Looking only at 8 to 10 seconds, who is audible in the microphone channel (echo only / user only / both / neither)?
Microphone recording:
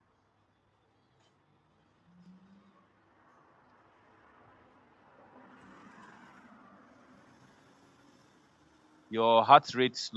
user only